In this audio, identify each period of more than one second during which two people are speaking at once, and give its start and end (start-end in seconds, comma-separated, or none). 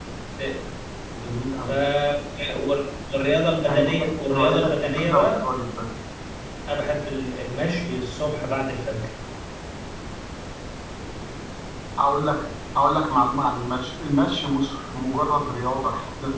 3.6-5.4